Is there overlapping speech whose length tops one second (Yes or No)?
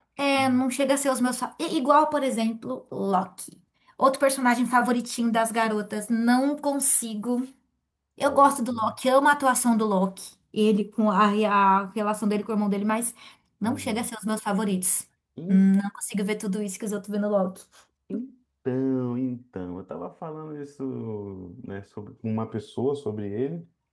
No